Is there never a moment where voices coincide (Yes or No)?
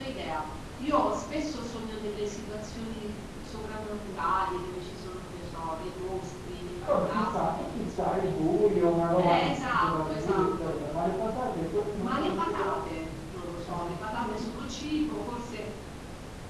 No